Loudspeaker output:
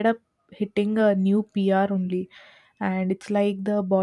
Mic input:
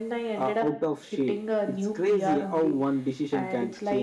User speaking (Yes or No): Yes